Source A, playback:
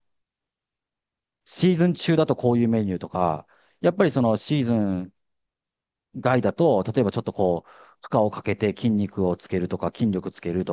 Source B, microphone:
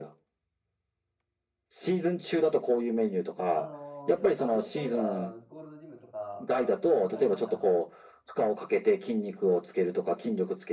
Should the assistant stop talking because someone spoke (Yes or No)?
Yes